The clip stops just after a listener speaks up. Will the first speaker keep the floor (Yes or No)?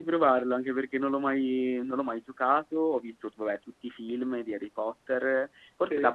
Yes